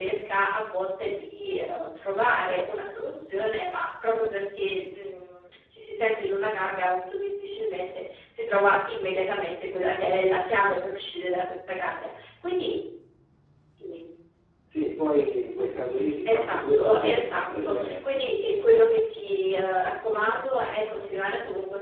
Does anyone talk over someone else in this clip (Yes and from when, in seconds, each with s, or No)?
Yes, from 16.2 s